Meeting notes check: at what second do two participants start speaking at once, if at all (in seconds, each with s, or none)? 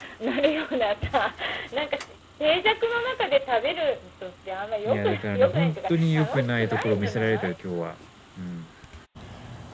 4.8 s